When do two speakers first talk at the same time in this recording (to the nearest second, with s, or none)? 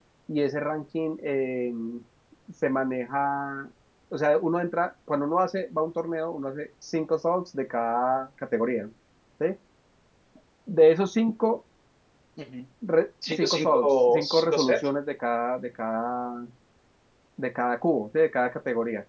13 s